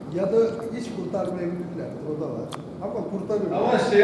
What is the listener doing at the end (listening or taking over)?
taking over